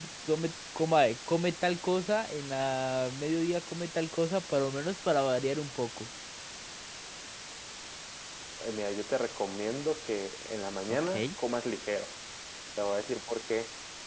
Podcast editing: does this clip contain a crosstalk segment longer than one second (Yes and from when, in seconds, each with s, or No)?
No